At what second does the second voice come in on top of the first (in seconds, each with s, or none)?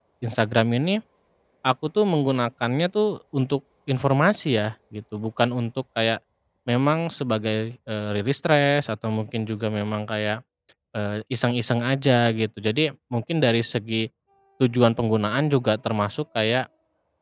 none